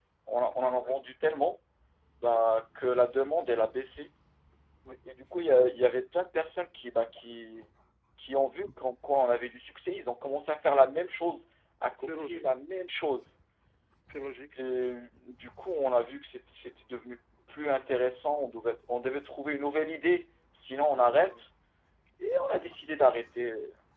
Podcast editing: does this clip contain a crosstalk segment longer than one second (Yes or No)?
No